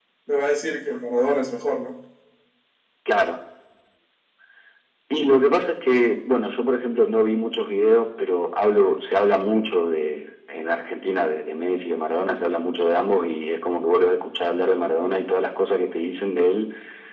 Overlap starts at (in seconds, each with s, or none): none